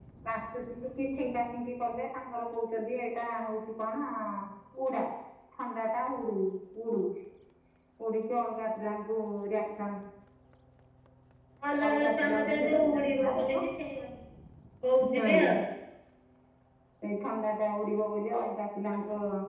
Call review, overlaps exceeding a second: present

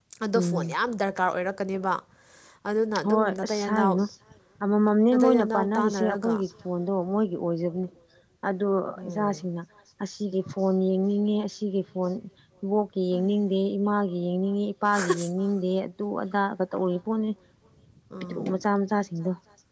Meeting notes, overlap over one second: present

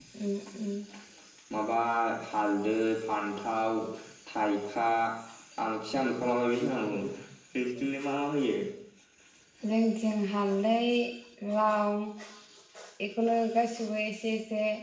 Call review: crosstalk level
none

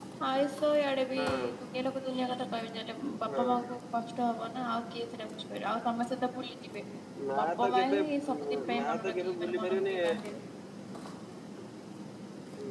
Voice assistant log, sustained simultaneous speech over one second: present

